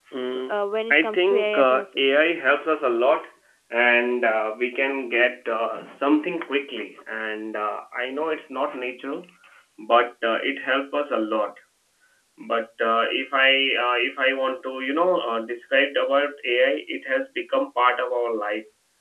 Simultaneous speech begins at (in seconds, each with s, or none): 0.9 s